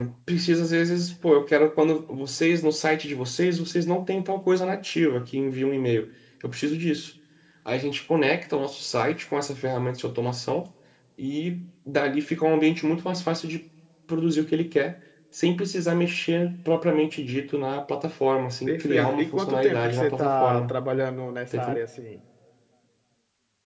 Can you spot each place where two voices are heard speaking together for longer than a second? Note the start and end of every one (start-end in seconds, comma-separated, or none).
18.7-20.8